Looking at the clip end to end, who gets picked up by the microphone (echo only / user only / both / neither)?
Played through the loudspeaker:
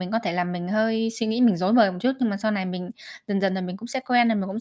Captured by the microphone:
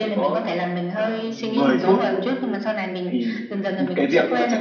both